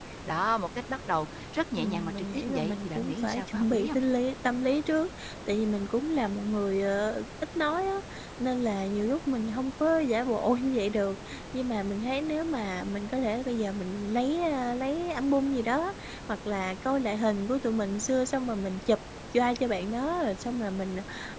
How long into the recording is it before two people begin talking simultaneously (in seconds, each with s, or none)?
1.8 s